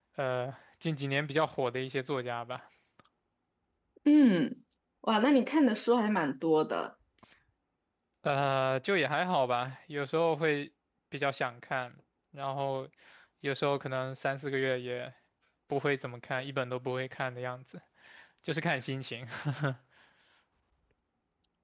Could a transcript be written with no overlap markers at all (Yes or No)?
Yes